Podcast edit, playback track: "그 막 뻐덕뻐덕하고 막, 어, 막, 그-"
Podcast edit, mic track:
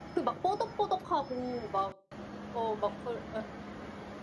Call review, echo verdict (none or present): present